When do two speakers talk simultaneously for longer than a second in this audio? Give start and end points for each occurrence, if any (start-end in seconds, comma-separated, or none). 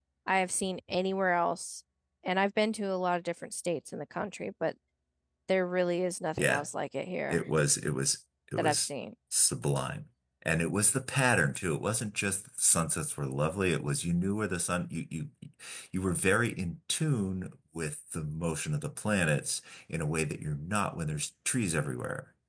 none